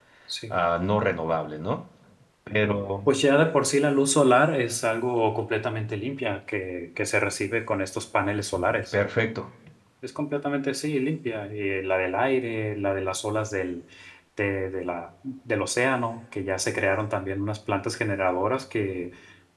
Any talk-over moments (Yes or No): No